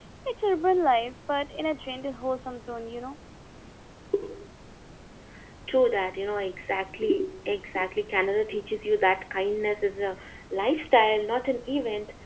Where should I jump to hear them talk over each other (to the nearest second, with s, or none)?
none